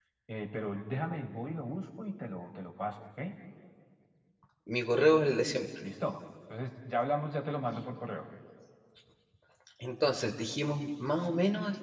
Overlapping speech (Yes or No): No